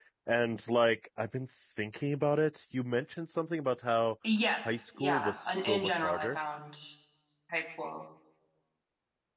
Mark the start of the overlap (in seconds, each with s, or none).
4.6 s